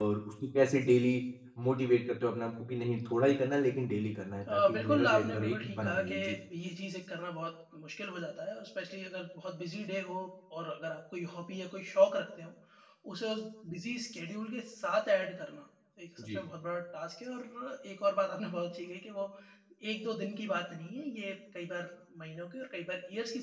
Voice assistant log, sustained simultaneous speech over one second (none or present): present